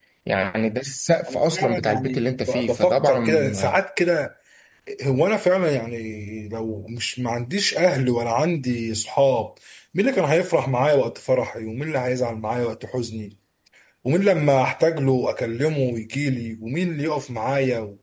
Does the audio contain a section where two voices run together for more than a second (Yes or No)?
Yes